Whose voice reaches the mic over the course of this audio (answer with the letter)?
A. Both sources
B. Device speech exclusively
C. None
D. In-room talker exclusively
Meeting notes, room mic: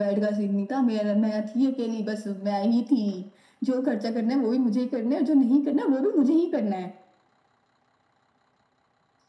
B